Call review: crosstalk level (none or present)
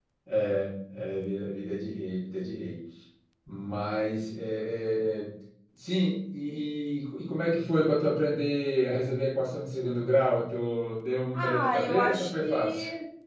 present